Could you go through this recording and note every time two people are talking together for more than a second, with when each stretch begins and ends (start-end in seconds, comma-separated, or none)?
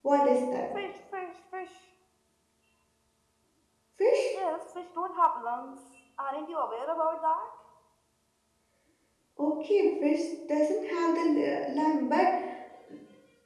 none